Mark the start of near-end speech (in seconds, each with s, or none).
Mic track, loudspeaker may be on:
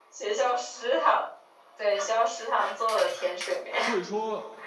3.7 s